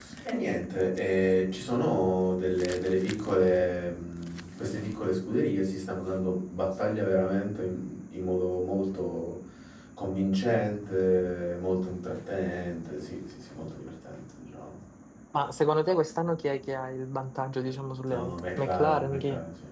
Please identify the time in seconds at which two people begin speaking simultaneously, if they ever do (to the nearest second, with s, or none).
18 s